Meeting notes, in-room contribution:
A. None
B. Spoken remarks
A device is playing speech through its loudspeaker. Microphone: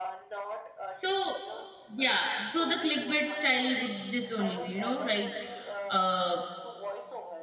B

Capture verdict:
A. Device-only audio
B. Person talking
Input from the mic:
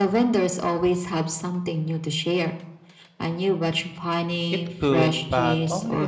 B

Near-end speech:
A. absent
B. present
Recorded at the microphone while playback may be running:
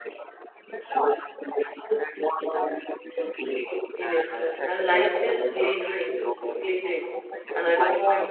B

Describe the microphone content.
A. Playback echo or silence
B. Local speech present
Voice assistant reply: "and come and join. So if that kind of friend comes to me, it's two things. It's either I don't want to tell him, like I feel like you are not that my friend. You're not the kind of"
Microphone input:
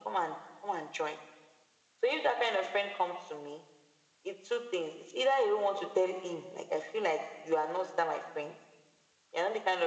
A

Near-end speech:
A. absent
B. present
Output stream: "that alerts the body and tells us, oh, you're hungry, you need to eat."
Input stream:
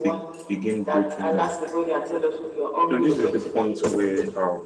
B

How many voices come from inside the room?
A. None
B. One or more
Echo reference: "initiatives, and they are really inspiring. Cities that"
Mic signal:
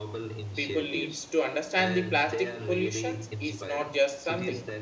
B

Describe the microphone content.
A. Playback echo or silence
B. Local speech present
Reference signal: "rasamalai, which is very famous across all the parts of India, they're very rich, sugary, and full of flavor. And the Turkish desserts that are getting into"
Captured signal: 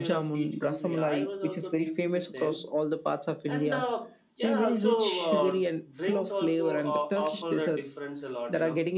B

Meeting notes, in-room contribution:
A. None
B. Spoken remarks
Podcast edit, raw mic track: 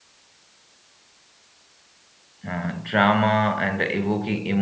B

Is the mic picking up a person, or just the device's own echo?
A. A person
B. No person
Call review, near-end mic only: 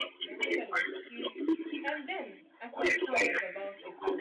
A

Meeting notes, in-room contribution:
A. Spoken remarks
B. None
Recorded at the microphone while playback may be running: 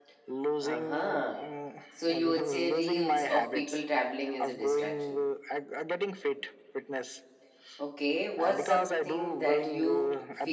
A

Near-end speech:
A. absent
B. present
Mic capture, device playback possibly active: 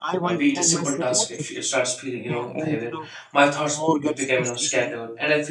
B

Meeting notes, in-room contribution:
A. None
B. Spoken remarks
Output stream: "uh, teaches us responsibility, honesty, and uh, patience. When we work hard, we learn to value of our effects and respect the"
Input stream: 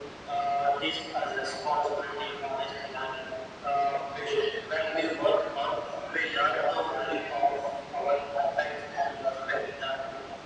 A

